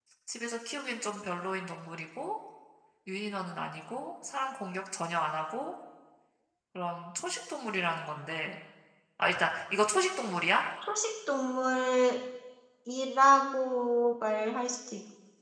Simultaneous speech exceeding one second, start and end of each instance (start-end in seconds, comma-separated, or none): none